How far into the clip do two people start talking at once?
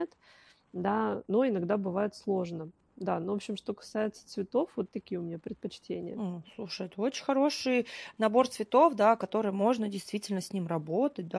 none

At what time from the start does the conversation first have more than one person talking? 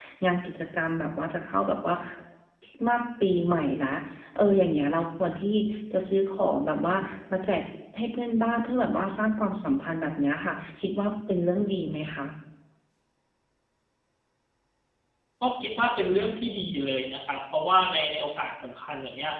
none

